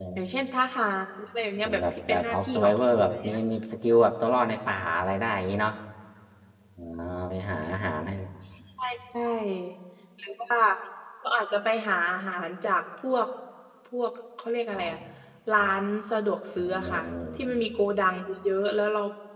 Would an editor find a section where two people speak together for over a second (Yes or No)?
Yes